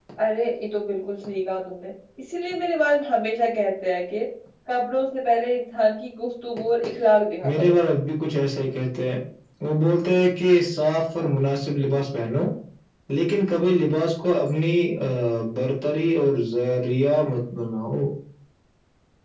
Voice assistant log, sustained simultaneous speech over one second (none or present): none